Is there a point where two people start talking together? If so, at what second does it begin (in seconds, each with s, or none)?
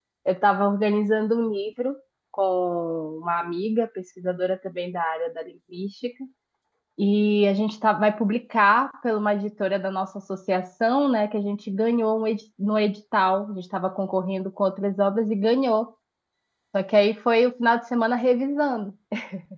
none